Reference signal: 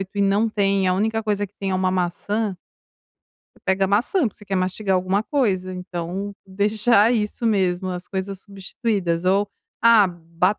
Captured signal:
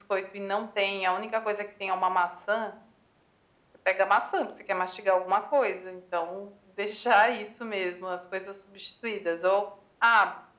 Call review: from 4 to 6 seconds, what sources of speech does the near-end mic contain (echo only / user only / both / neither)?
echo only